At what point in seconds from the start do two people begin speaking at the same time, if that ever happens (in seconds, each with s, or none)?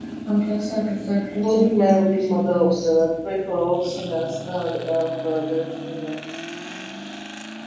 1.4 s